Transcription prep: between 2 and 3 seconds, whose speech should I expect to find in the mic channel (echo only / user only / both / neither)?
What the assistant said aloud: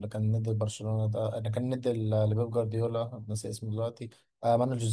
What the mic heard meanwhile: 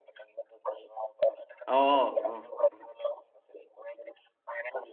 both